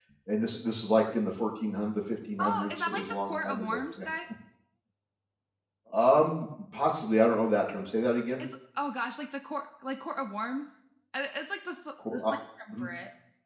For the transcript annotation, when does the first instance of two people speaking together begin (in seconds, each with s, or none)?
2.4 s